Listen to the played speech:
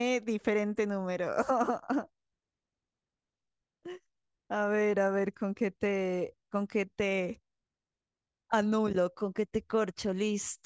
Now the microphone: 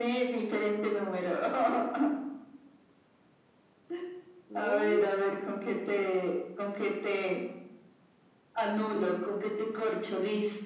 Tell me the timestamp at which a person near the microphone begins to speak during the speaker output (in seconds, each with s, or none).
4.5 s